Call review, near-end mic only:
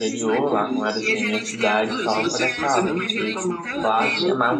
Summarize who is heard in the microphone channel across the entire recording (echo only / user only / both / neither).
both